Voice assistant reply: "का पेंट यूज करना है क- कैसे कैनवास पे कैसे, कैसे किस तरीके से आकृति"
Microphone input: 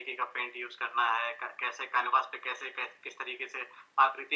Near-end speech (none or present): none